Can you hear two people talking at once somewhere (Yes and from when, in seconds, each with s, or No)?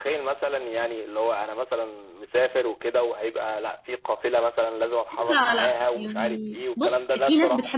Yes, from 5.1 s